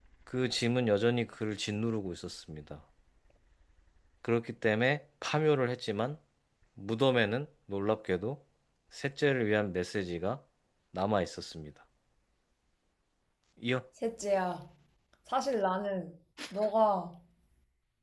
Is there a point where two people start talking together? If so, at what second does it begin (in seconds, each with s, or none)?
none